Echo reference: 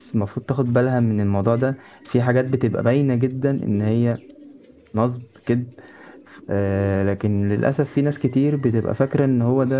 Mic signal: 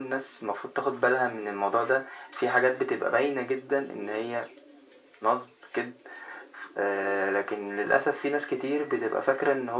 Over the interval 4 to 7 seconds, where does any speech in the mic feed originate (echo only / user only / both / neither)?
echo only